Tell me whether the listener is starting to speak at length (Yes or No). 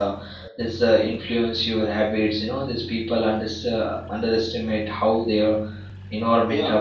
Yes